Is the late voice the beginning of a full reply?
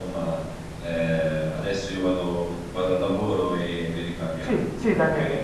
Yes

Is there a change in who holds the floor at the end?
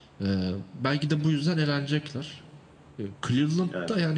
No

